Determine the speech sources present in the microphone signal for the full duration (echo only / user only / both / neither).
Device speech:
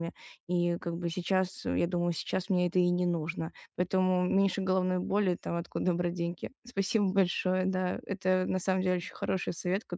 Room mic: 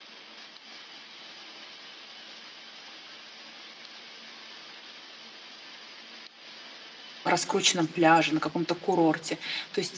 user only